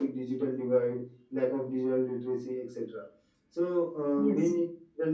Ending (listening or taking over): listening